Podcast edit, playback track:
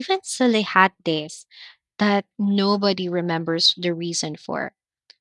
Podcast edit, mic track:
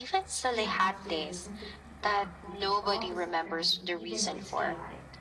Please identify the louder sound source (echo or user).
echo